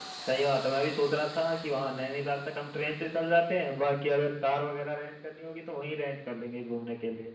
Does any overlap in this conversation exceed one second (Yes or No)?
No